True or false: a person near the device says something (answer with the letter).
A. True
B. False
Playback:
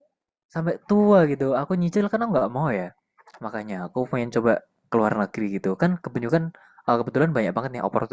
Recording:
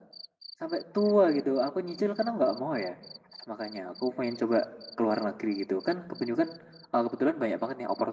B